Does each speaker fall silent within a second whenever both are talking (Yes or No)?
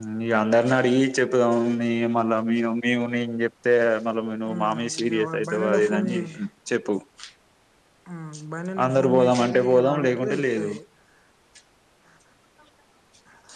No